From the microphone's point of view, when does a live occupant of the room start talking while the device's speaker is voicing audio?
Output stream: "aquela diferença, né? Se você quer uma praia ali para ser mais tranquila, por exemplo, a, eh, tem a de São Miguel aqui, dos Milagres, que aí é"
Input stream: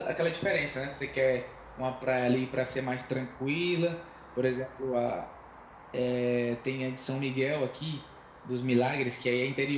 none

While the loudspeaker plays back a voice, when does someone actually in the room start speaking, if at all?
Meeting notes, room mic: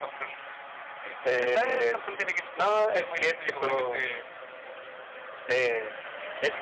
none

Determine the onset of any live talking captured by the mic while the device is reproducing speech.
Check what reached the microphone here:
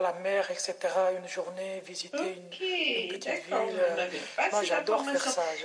2.1 s

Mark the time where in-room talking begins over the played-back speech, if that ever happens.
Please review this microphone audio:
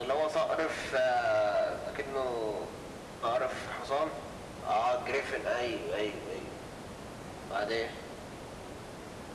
none

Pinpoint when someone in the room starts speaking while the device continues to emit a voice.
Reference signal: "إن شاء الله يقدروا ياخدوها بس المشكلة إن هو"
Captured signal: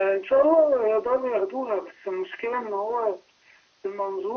none

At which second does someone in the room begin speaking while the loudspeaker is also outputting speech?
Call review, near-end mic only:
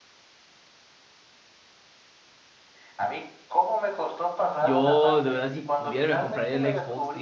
4.6 s

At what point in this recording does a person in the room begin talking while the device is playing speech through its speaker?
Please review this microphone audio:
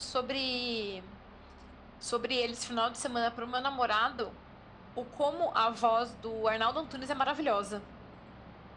none

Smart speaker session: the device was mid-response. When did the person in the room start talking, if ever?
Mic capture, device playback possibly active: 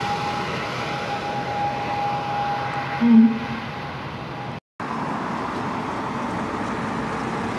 3.0 s

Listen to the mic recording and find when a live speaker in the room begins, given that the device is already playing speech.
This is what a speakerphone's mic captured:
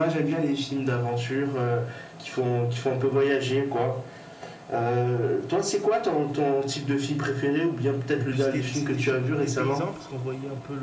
8.2 s

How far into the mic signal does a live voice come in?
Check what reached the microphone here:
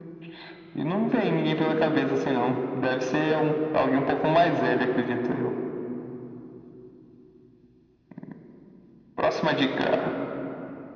none

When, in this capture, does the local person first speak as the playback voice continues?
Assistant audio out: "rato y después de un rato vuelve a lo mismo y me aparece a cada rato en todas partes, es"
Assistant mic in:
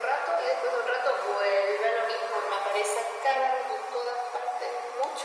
none

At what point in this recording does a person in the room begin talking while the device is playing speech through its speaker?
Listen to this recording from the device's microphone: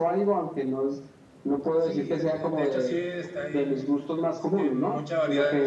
1.8 s

